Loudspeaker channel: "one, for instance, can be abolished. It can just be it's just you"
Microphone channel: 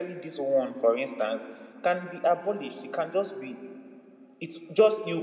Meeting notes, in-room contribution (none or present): none